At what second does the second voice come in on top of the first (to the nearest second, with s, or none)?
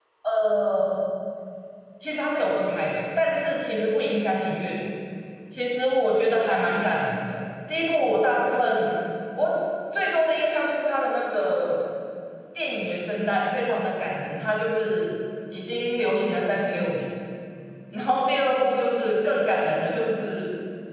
none